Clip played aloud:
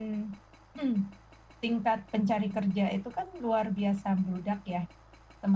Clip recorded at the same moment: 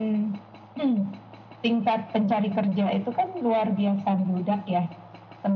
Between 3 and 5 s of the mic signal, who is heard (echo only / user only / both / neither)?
echo only